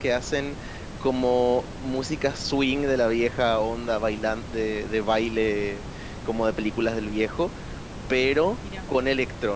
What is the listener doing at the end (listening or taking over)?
listening